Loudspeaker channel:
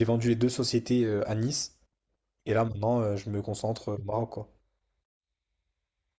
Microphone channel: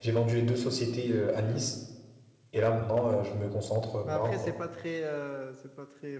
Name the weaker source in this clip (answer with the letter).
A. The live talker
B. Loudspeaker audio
A